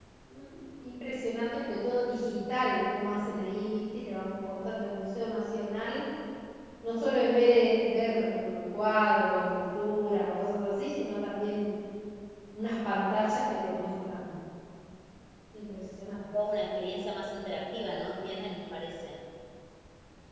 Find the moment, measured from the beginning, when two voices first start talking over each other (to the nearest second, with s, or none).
none